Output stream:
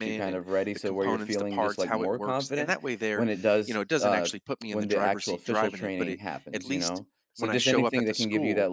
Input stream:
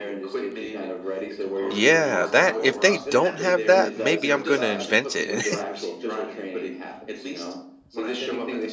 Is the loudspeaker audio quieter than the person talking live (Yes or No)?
Yes